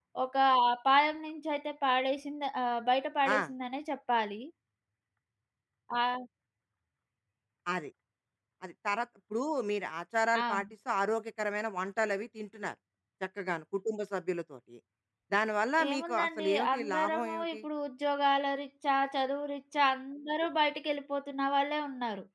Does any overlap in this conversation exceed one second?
Yes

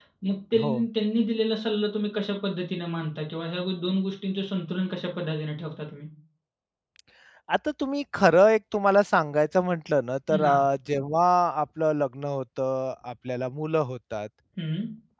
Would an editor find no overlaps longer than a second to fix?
Yes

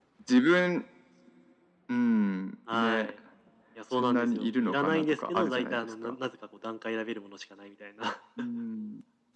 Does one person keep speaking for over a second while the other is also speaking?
Yes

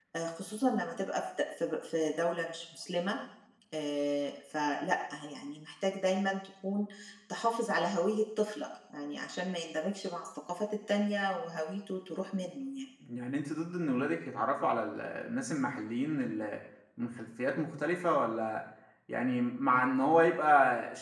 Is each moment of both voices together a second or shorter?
Yes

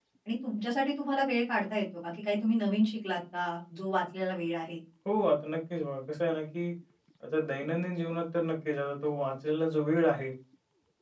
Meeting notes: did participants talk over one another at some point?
No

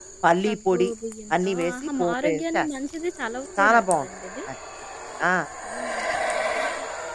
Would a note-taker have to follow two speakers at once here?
Yes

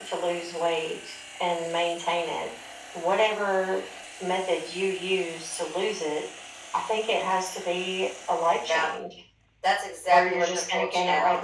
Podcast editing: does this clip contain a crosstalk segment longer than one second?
Yes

